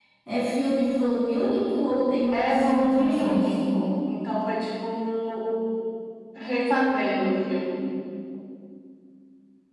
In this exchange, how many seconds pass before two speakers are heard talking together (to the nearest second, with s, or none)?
2 s